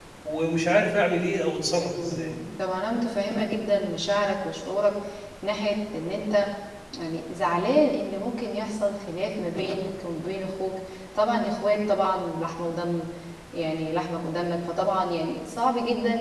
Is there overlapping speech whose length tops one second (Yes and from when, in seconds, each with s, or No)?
No